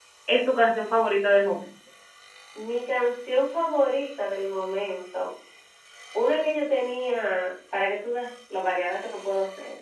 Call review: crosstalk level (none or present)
none